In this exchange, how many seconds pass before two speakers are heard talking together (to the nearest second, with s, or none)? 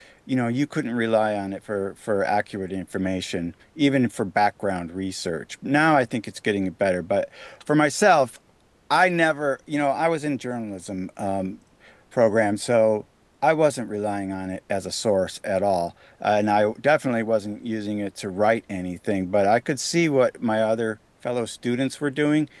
none